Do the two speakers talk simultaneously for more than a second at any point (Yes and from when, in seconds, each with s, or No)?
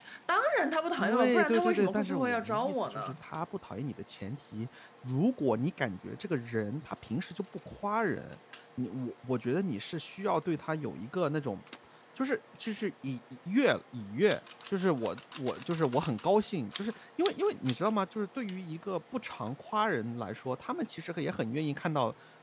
Yes, from 1.0 s